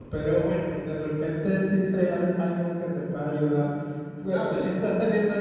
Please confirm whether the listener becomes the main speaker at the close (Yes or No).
No